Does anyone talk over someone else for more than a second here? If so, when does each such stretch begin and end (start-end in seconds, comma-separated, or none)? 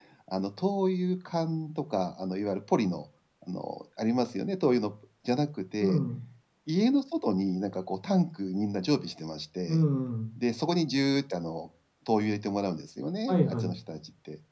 none